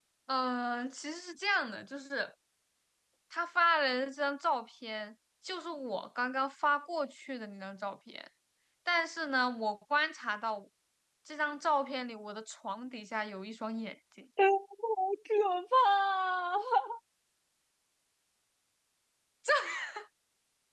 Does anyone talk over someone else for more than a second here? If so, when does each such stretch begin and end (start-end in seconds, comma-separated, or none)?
none